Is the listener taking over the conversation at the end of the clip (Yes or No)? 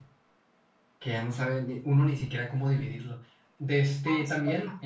No